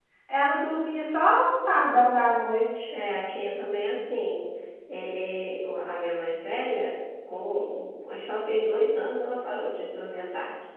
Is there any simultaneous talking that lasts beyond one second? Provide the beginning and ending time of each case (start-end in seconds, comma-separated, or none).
none